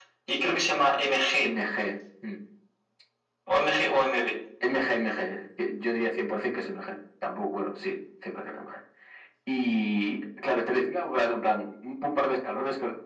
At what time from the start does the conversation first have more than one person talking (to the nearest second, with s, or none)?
none